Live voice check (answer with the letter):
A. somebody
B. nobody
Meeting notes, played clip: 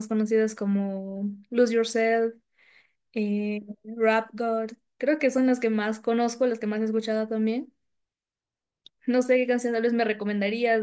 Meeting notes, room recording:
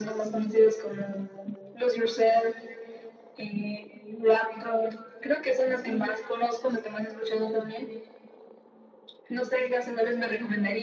B